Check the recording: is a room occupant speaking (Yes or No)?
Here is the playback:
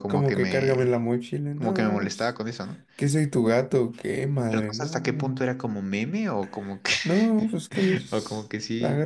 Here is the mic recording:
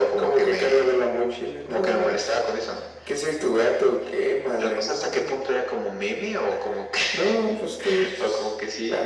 No